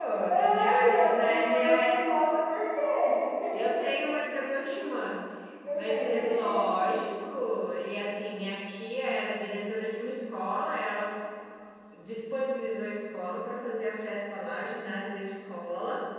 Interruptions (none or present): present